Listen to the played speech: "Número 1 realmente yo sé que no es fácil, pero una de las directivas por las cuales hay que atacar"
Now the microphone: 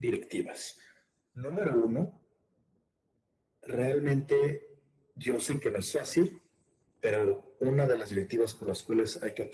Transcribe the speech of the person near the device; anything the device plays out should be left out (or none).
none